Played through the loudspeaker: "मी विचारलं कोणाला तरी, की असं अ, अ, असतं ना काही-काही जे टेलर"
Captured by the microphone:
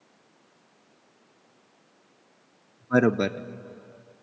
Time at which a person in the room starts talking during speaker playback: 2.9 s

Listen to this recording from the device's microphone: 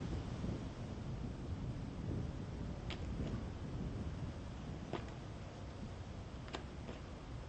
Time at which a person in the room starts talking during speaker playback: none

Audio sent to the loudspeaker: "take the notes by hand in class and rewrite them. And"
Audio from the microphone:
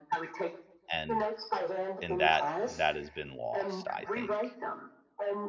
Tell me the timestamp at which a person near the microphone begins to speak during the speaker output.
0.9 s

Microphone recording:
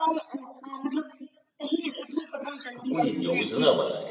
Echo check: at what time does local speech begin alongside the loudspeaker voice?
2.8 s

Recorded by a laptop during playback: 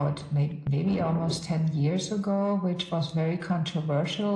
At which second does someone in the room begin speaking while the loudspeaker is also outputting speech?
none

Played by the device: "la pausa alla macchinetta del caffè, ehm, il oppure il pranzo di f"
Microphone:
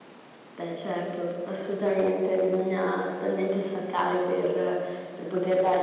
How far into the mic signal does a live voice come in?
0.6 s

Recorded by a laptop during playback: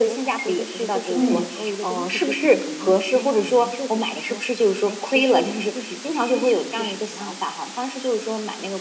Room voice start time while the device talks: 1.1 s

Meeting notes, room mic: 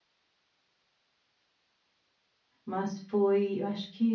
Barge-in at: 2.6 s

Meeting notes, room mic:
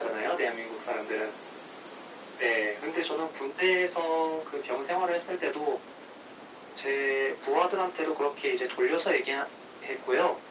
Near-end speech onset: none

